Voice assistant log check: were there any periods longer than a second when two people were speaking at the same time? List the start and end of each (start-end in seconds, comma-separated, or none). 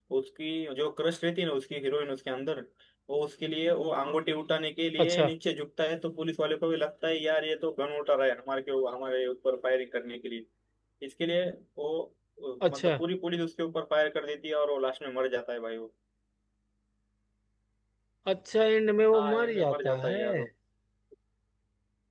19.1-20.4